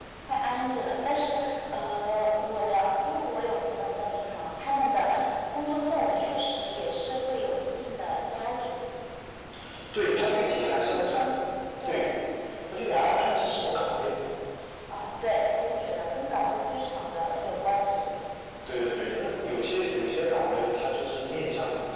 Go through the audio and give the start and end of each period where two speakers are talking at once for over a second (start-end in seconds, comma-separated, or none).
10.1-11.3